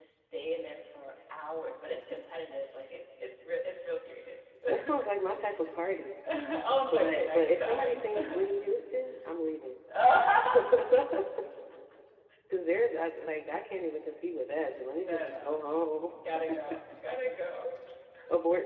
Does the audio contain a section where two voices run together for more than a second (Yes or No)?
Yes